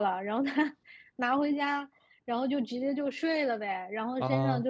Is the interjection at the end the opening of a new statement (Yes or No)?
No